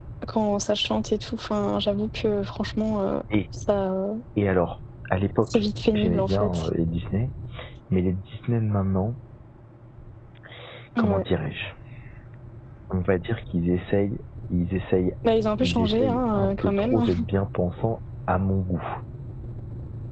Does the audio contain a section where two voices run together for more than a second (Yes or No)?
Yes